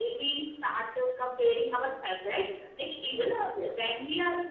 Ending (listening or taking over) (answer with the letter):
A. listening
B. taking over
A